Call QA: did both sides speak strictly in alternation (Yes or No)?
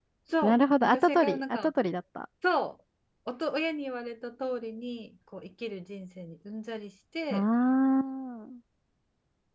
No